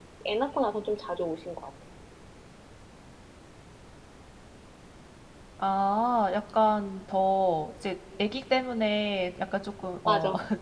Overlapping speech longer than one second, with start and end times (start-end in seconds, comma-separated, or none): none